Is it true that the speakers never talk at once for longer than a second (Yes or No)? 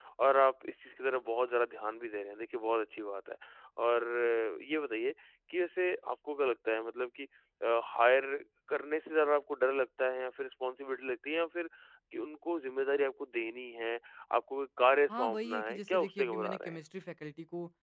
No